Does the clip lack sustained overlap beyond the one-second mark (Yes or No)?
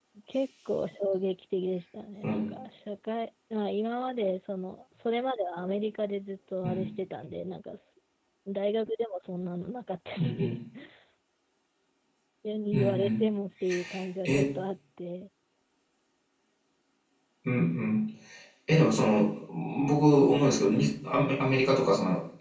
Yes